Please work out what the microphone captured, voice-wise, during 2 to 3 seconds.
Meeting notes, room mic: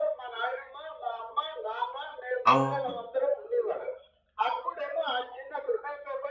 both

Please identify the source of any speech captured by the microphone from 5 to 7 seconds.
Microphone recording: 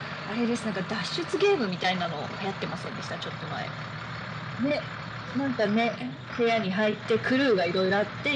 echo only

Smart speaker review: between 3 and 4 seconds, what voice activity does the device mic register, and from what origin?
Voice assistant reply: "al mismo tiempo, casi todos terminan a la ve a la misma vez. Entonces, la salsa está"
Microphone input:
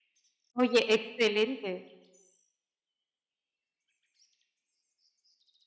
neither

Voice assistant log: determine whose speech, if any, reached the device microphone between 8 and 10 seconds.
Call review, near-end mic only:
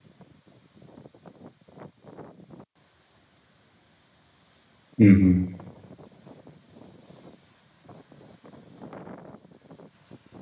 neither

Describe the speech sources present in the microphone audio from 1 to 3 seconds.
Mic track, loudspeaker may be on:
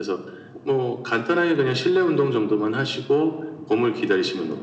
echo only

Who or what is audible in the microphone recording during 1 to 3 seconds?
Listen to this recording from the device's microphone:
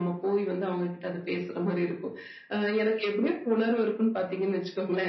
echo only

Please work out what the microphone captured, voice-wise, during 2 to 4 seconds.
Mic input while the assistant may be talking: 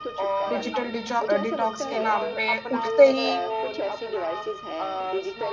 both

